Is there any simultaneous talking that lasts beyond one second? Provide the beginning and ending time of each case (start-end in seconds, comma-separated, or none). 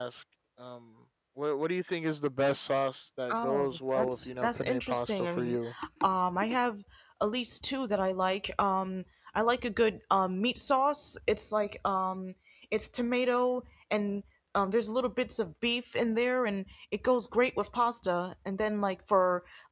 3.3-5.6